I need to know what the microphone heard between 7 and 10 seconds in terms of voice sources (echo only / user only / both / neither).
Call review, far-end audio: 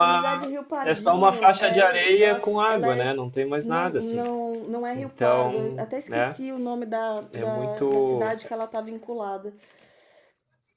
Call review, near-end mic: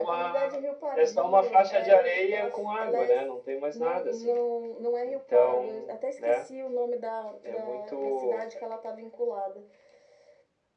echo only